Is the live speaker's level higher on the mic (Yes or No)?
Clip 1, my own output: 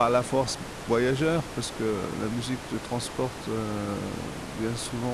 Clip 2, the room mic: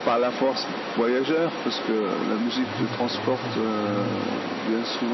No